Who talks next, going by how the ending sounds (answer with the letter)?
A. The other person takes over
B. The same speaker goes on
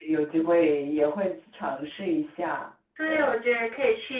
A